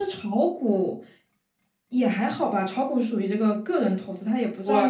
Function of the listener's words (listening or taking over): taking over